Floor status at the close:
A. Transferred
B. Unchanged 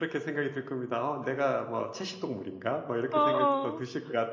B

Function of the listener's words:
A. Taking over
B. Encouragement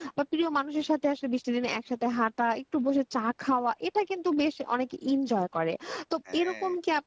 B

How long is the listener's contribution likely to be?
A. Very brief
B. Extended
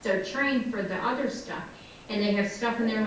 A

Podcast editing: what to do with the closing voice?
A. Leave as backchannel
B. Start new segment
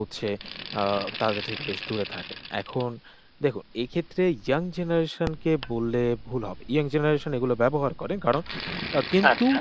A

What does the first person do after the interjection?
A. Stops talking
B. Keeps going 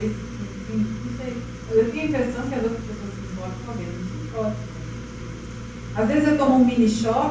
B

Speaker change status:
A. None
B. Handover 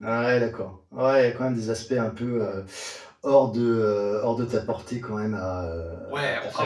B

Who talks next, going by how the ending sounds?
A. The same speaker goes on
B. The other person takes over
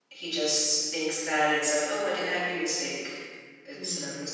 B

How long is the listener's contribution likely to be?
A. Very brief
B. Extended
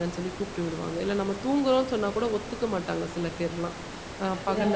A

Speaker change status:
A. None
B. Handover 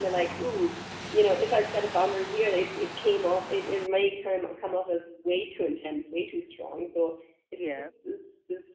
A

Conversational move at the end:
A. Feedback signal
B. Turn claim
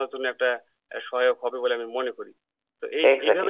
B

